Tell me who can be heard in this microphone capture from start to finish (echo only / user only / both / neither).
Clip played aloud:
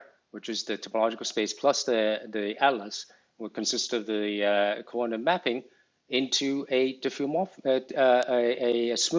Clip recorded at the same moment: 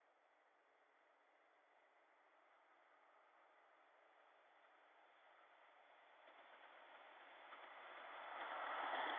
neither